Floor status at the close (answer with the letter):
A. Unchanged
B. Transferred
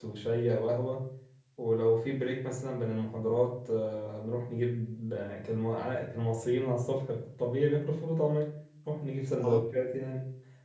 A